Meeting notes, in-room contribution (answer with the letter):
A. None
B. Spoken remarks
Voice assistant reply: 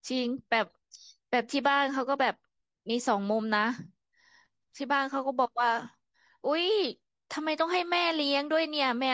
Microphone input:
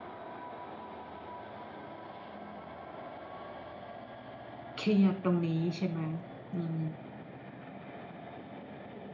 B